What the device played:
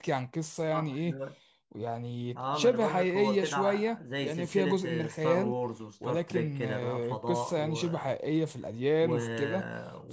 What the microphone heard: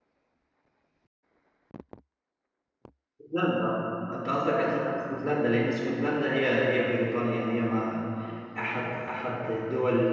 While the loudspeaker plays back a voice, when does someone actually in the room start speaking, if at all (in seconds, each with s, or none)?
3.2 s